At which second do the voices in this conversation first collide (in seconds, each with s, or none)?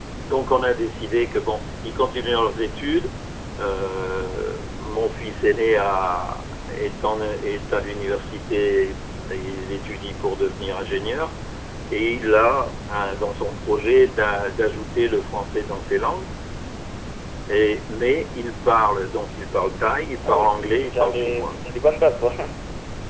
20.2 s